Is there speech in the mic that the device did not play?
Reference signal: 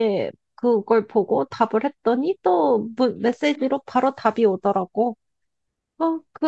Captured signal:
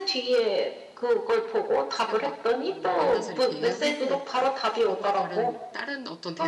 Yes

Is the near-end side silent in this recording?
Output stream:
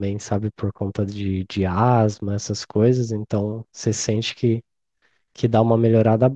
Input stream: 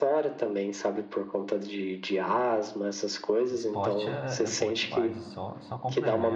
No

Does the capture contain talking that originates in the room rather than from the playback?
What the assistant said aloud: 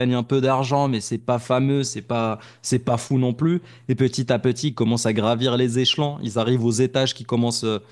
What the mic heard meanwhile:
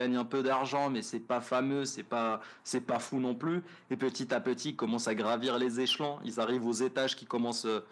No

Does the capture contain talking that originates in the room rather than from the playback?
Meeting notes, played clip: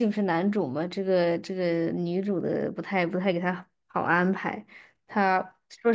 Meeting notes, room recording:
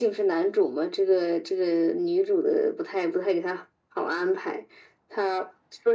No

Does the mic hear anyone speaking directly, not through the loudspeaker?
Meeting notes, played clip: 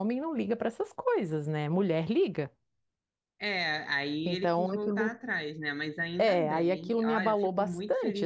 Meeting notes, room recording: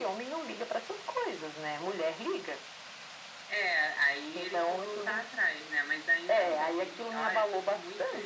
No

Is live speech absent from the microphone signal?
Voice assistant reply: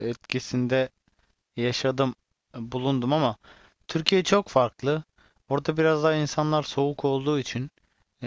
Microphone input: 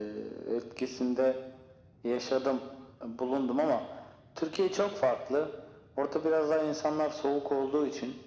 Yes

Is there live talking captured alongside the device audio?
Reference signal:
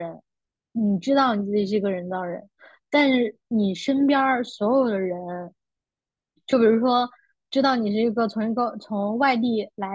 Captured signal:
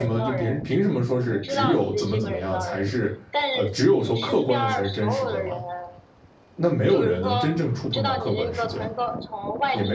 Yes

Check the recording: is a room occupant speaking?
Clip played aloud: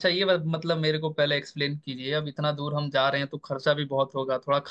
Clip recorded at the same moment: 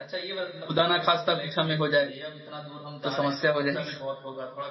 Yes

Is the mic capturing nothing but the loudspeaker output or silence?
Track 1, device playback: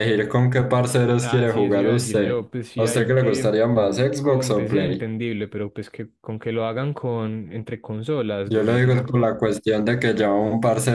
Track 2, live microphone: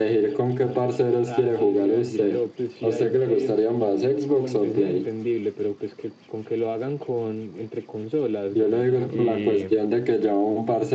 No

